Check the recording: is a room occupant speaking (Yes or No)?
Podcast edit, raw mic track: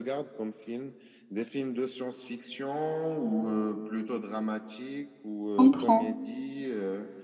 Yes